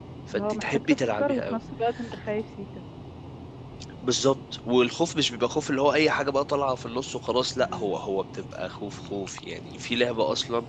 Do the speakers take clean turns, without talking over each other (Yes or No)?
No